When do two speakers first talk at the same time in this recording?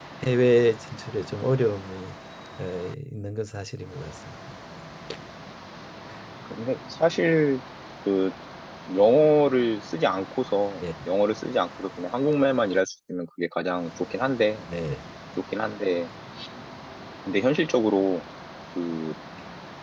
none

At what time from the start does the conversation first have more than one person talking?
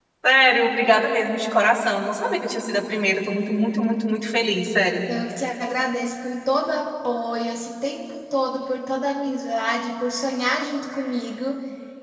none

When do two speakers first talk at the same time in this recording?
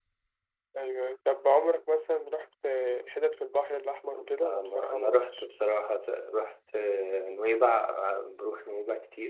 4.1 s

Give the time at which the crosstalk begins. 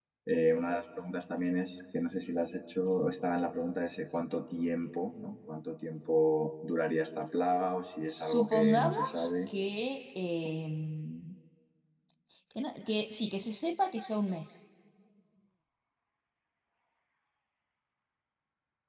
8.1 s

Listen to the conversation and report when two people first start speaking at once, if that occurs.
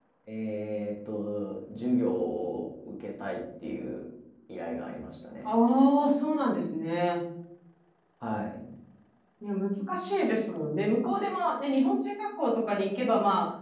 none

